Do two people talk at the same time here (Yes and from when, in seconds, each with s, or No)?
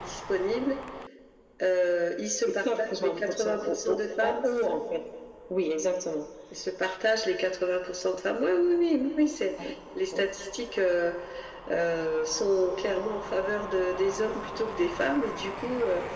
Yes, from 2.5 s